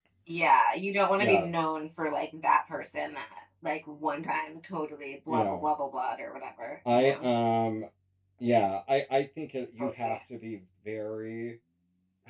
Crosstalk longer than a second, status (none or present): none